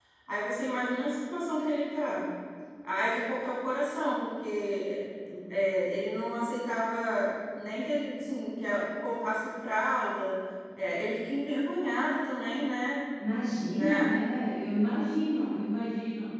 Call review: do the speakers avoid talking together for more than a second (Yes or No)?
Yes